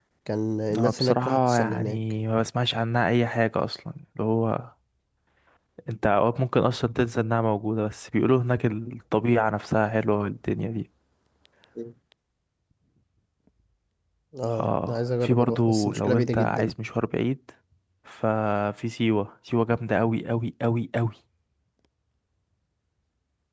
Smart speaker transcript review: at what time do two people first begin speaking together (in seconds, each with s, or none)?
0.8 s